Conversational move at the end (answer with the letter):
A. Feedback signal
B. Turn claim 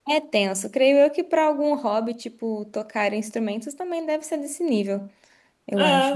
B